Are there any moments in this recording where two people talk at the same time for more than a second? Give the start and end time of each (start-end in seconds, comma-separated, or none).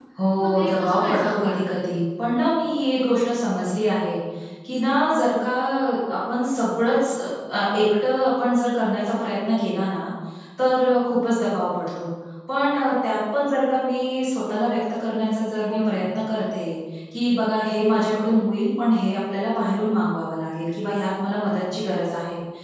0.7-2.0